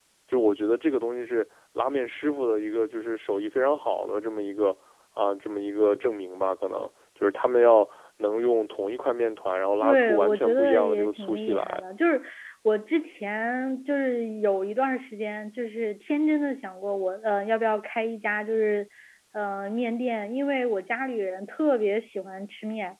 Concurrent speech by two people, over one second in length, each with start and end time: 9.8-11.6

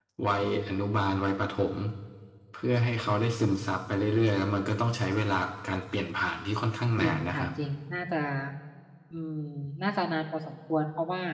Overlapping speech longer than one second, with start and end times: none

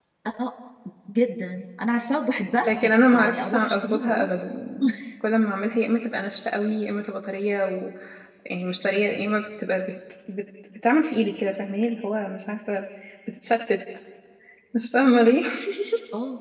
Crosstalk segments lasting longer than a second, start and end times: 2.6-4.3

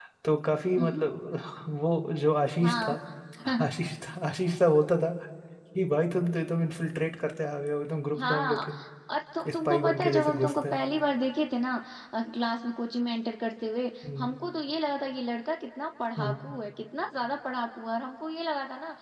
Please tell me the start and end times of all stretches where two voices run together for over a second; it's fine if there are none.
9.4-10.8

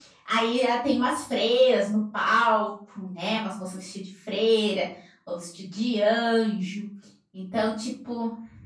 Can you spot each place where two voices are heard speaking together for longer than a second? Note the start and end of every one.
none

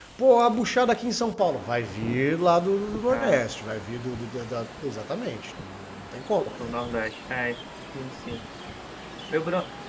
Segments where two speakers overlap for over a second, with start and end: none

